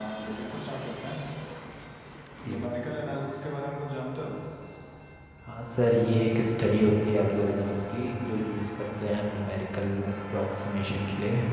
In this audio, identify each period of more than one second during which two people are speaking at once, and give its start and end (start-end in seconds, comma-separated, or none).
none